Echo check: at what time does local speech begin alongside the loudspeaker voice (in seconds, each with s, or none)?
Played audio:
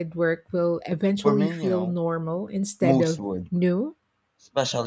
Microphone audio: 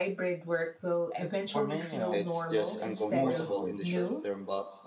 2.1 s